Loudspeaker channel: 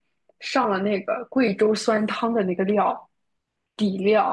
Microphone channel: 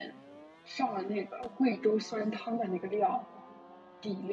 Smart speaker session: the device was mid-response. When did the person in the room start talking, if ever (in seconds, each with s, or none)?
none